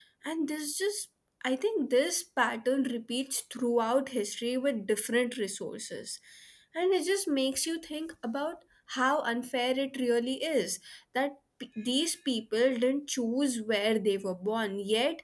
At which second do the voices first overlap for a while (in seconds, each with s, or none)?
none